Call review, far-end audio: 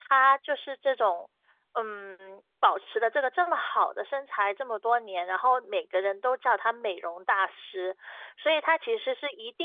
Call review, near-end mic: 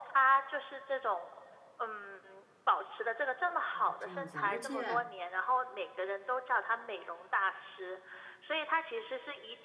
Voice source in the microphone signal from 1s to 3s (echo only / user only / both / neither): echo only